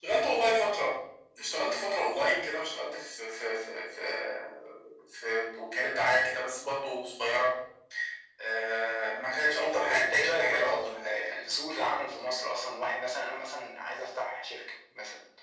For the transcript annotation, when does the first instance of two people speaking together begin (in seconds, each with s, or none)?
9.3 s